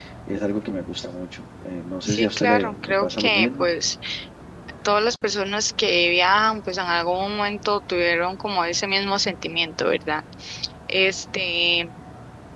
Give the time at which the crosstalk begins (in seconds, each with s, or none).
2.1 s